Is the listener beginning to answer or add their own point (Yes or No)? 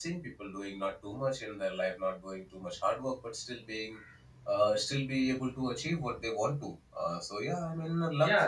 Yes